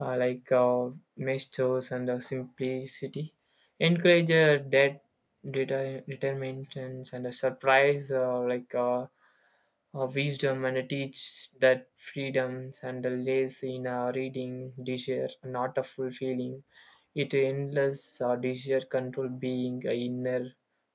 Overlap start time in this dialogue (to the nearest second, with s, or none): none